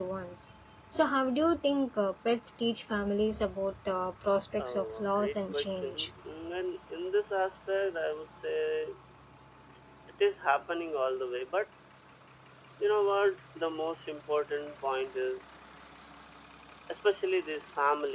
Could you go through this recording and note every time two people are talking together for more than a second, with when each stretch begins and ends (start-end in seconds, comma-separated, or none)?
4.6-6.1